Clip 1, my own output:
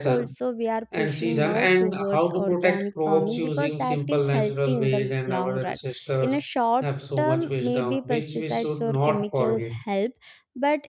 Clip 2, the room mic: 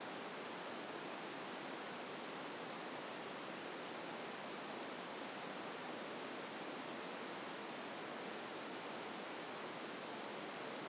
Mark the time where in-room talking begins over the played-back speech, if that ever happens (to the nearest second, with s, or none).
none